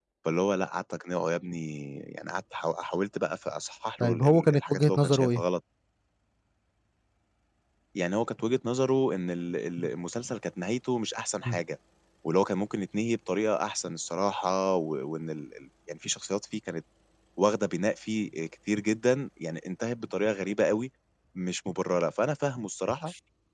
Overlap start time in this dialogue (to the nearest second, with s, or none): 4 s